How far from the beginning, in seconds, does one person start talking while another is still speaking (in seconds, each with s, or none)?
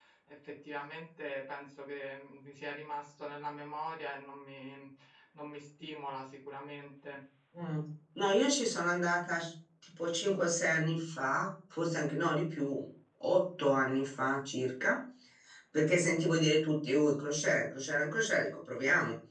none